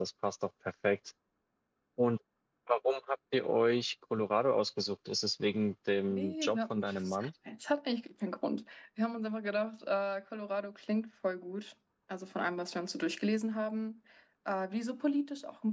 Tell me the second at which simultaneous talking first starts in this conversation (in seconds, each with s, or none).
6.1 s